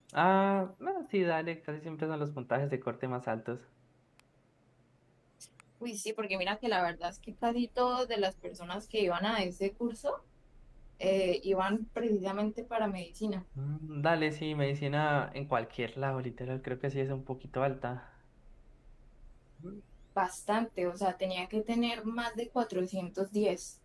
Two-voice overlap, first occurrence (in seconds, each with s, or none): none